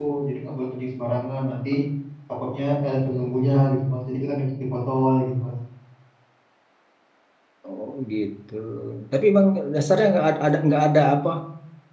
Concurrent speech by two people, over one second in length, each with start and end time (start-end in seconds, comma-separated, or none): none